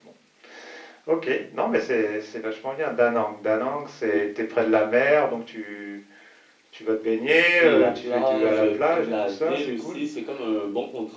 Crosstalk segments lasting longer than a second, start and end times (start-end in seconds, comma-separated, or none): 7.6-10.0